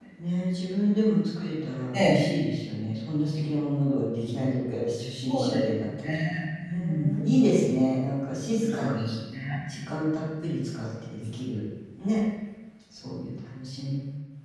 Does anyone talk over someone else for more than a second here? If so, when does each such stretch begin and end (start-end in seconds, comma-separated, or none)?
none